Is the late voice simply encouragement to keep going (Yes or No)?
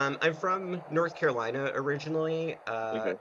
Yes